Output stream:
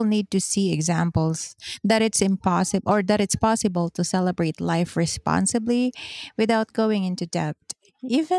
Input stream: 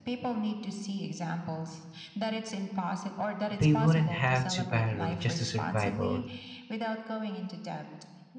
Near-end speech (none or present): present